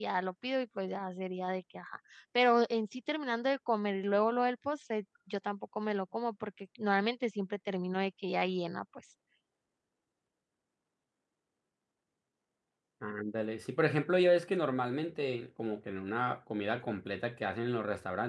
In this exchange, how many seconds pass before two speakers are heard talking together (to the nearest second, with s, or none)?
none